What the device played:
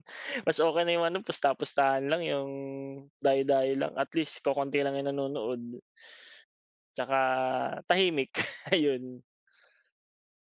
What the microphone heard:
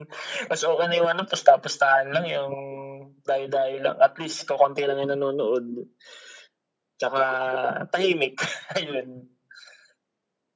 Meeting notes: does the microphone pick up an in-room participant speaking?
No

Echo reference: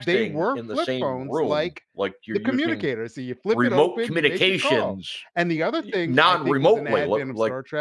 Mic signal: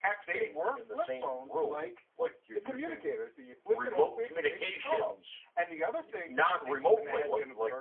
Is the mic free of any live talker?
Yes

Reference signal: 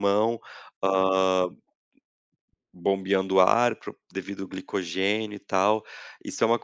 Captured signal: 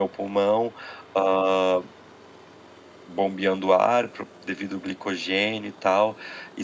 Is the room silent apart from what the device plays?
Yes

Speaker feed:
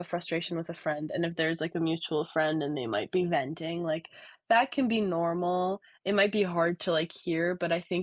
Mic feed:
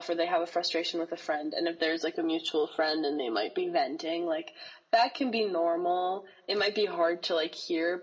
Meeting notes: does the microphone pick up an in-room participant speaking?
No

